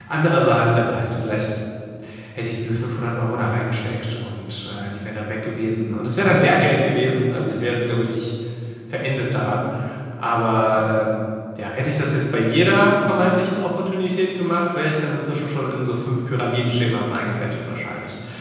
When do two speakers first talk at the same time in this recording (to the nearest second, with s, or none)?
none